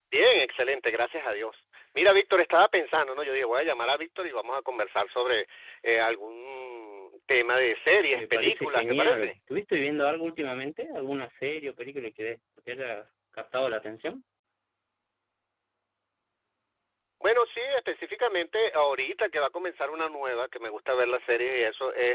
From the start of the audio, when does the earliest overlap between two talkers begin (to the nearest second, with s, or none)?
8 s